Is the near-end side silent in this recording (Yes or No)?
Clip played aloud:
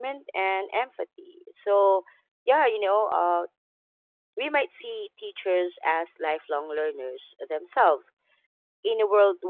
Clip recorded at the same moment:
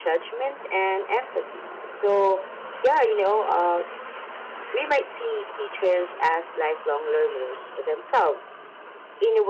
Yes